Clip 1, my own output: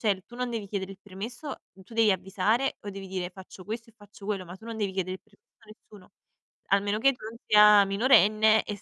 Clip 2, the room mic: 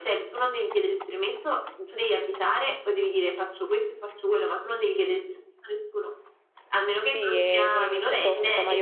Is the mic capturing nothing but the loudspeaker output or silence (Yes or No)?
No